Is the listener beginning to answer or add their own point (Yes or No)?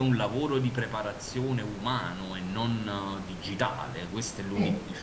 No